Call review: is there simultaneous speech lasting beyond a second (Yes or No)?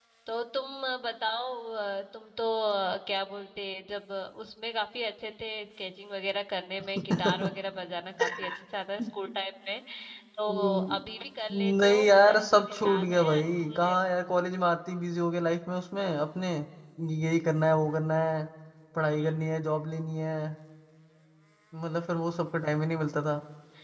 Yes